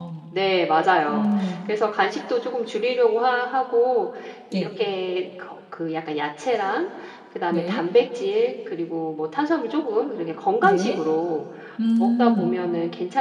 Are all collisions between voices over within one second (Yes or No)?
Yes